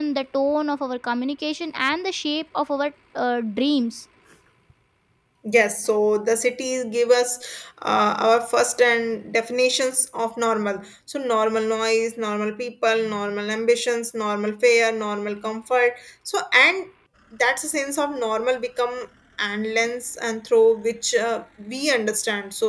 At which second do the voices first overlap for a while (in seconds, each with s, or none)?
none